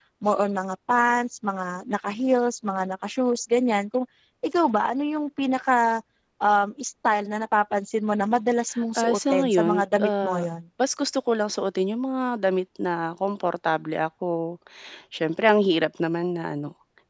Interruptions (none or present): present